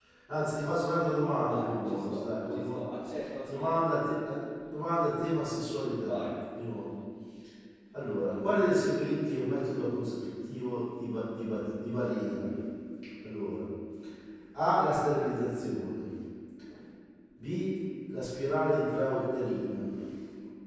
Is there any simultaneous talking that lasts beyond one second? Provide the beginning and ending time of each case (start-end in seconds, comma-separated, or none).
1.4-2.8